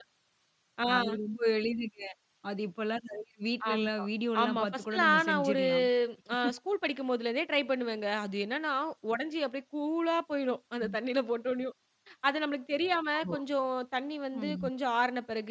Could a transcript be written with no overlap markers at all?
No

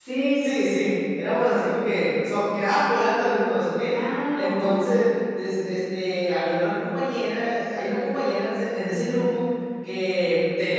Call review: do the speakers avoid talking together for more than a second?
Yes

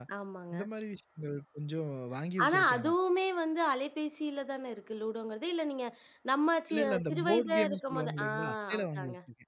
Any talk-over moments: Yes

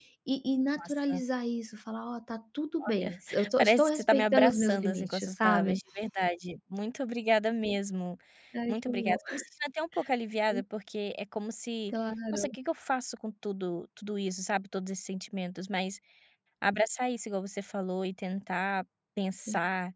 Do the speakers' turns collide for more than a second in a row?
Yes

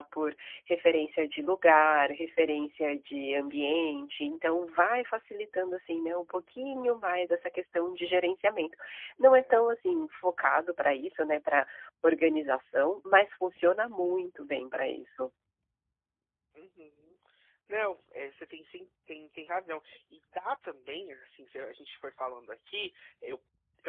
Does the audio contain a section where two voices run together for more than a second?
No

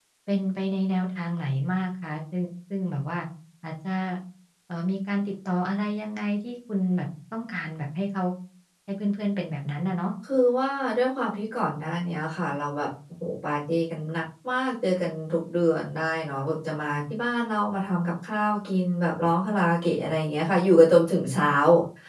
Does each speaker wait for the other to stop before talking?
Yes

